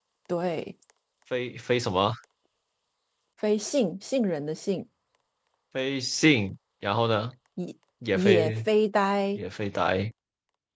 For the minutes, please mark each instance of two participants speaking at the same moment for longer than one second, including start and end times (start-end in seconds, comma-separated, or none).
none